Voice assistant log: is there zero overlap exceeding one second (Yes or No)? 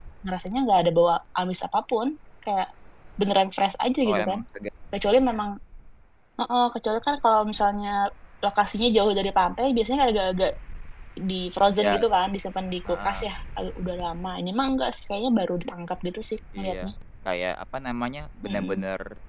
Yes